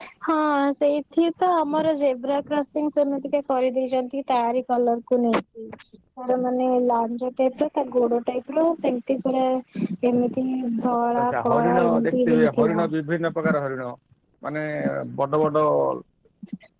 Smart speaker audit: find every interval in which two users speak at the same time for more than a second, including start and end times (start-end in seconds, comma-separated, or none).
11.2-12.9